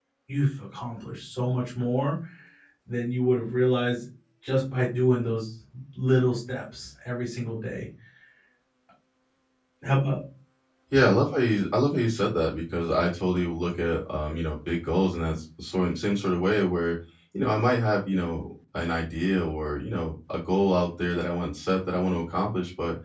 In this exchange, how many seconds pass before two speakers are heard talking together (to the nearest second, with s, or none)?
none